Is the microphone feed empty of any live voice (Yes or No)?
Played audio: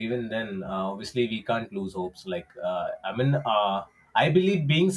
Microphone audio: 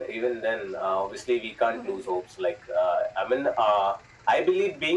No